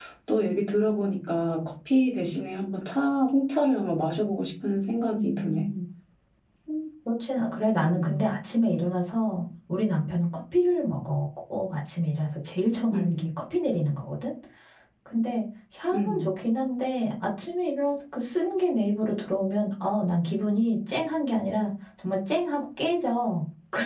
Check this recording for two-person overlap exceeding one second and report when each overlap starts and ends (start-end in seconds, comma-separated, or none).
none